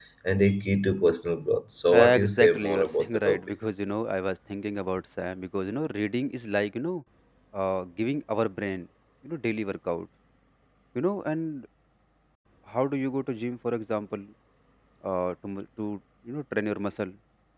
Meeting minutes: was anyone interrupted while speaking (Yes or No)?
Yes